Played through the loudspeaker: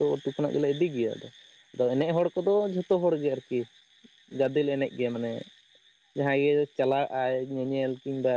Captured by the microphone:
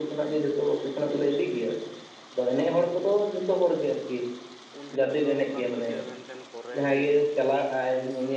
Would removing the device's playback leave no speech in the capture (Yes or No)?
No